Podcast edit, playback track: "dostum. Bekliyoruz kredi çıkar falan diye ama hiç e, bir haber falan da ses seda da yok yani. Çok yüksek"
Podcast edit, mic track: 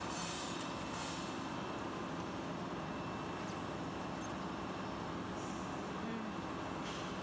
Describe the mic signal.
neither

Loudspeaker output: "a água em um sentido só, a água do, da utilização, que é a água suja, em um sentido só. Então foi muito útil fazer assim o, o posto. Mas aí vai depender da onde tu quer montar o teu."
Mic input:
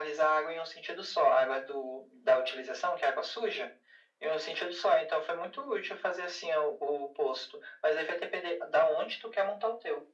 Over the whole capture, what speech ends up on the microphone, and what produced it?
echo only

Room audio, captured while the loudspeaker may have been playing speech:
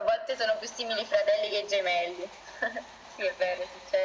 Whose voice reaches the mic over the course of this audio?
echo only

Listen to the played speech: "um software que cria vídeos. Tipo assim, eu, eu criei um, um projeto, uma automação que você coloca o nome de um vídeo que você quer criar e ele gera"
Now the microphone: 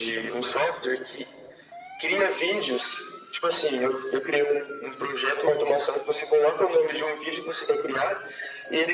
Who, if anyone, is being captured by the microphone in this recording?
echo only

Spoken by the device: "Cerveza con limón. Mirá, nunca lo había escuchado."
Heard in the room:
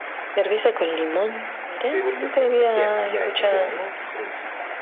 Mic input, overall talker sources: both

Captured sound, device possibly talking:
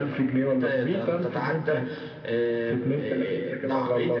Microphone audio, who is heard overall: echo only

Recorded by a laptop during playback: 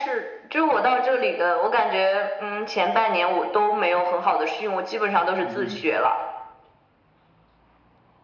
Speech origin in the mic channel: both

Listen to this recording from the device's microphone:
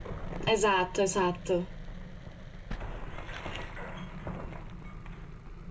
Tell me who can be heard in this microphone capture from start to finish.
user only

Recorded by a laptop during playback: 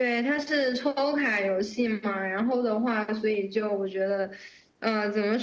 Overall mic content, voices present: echo only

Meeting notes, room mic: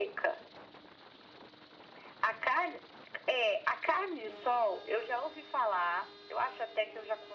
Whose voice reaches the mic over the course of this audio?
echo only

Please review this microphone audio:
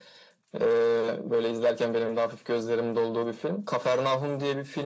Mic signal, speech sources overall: echo only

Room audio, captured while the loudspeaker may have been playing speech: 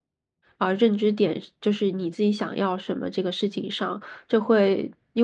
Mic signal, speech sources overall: user only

